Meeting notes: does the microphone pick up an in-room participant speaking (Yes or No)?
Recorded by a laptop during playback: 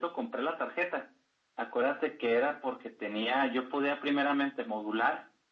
No